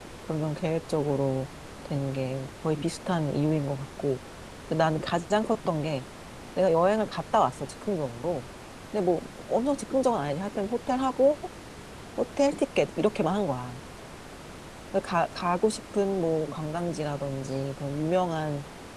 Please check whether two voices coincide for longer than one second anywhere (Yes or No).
No